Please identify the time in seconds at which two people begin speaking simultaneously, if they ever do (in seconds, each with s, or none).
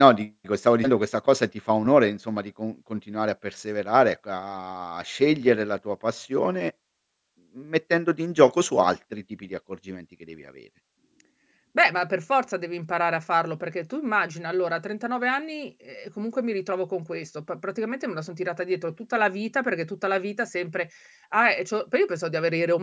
none